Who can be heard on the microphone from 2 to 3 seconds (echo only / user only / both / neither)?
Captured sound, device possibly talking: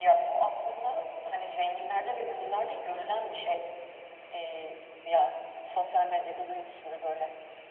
echo only